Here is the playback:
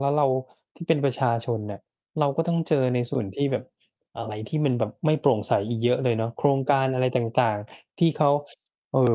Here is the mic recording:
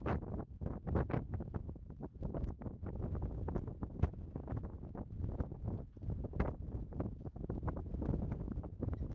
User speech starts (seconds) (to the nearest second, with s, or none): none